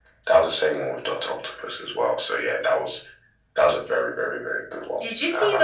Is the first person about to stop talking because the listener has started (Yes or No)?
Yes